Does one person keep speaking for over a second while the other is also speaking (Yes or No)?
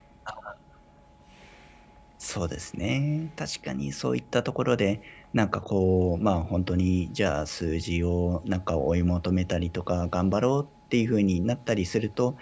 No